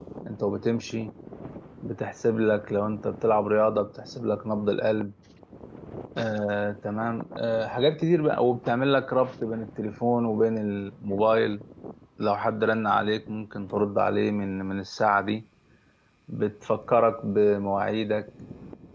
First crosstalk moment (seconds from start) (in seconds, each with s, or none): none